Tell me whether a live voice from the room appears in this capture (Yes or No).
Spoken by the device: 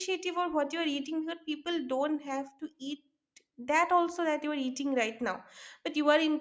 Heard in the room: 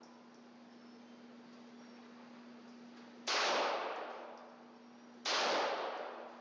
No